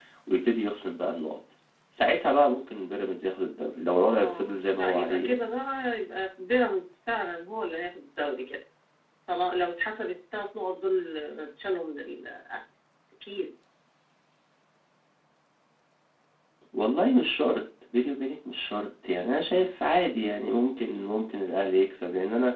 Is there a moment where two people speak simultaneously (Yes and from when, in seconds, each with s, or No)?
Yes, from 4.1 s